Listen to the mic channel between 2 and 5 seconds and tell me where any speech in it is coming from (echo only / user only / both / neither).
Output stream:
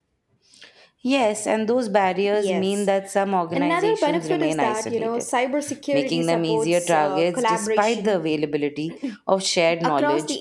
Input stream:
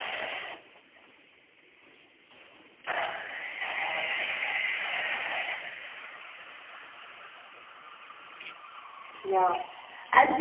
neither